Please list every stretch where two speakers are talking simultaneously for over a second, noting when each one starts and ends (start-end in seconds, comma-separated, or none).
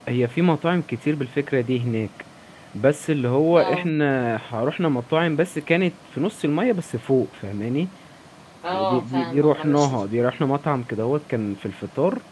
8.7-10.3